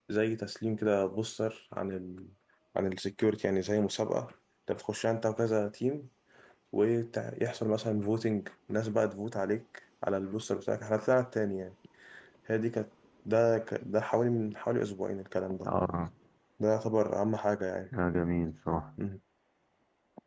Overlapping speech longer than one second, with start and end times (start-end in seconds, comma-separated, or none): none